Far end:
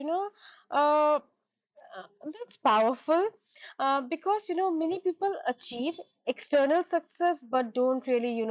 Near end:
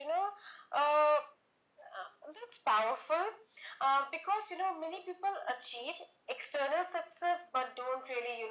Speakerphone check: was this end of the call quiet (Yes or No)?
Yes